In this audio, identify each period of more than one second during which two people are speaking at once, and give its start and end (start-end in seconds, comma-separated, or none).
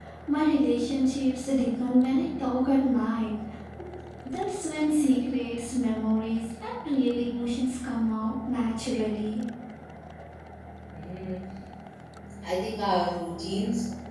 none